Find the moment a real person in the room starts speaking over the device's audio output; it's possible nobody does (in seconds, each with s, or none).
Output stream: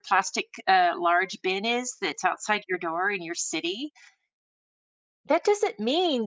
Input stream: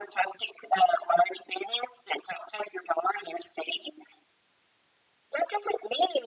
none